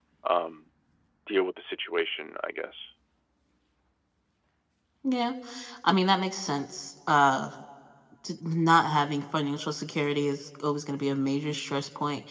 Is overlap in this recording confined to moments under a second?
Yes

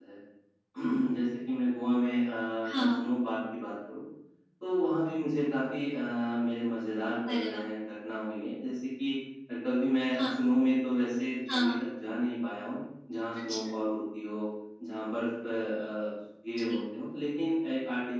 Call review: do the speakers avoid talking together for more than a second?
Yes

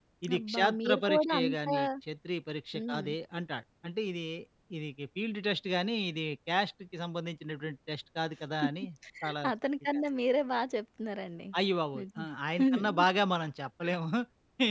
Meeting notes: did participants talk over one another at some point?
Yes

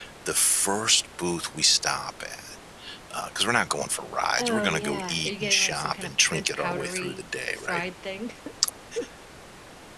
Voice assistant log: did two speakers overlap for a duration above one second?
Yes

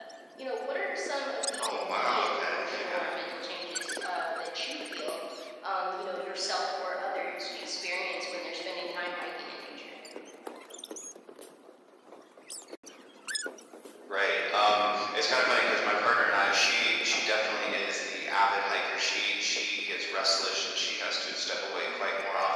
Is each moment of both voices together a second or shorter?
No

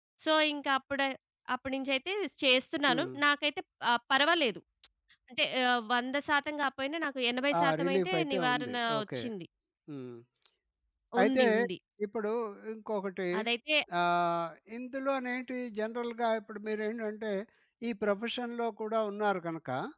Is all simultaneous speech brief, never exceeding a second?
No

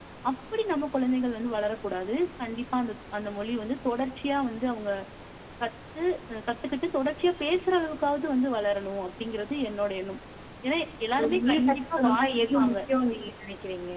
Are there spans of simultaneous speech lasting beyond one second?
Yes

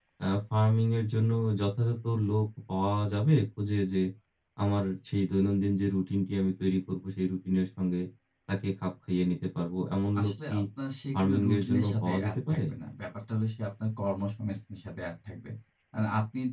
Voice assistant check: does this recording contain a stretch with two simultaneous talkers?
Yes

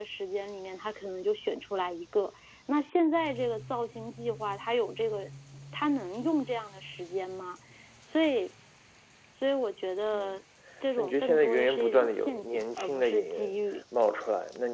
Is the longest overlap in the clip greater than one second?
Yes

